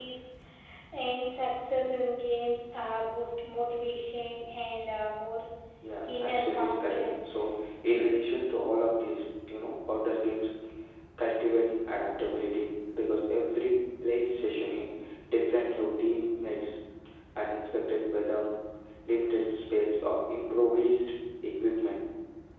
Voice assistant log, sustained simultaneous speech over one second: present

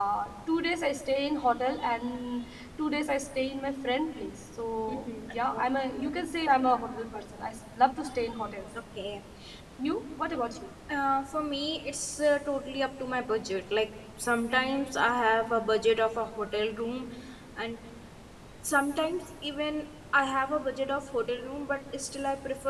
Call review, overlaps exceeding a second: none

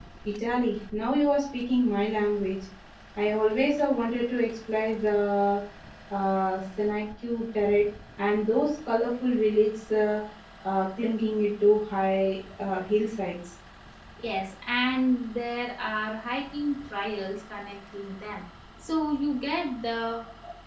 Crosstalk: none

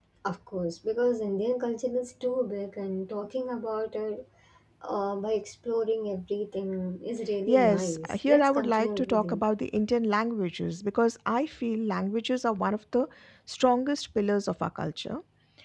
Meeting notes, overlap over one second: present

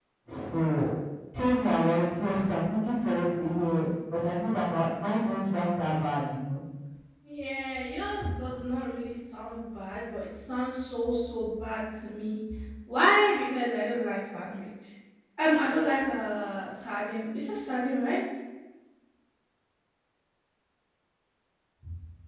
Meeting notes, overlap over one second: none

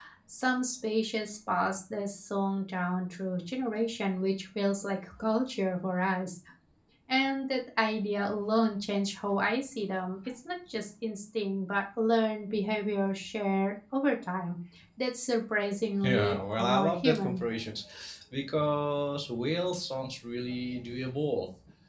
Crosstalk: present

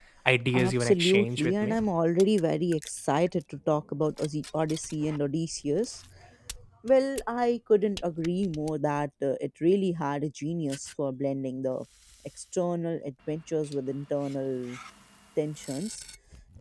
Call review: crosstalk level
present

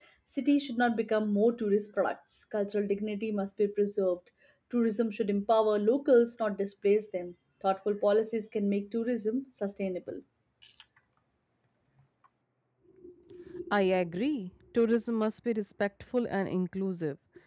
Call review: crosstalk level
none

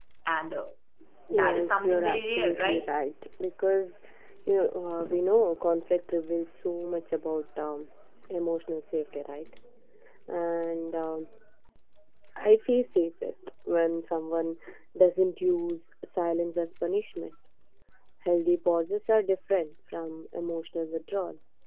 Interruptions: present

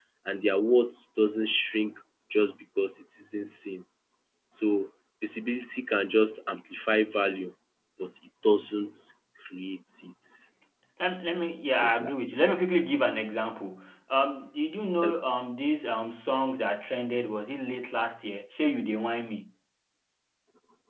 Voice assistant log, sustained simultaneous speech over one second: none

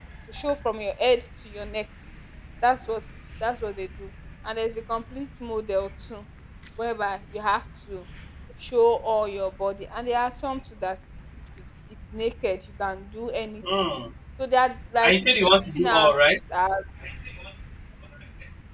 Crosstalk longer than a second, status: present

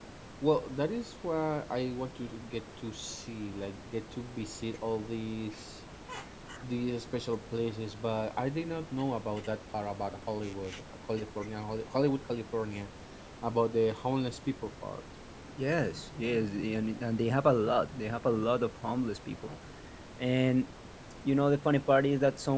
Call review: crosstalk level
none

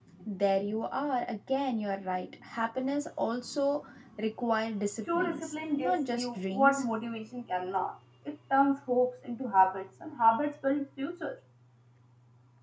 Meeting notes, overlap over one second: present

